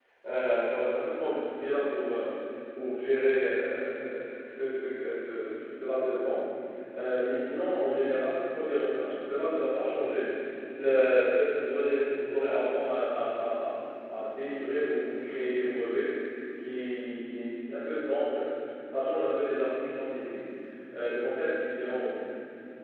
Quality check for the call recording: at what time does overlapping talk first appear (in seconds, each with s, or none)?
none